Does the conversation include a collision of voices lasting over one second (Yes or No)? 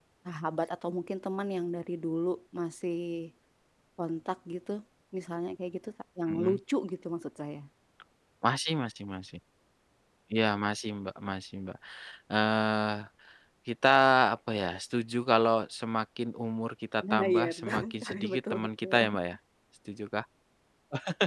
Yes